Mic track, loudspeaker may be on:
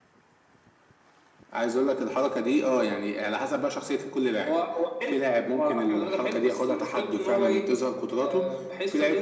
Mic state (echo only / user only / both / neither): echo only